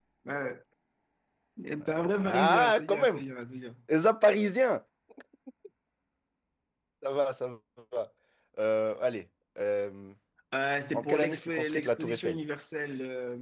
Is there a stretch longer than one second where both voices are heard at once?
Yes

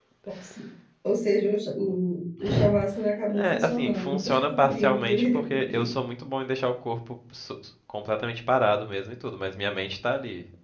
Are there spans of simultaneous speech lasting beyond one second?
Yes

